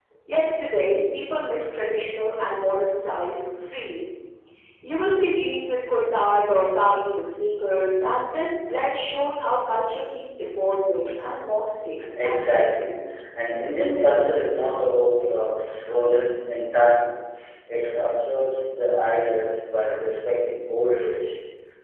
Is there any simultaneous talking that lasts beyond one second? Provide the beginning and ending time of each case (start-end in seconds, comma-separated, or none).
none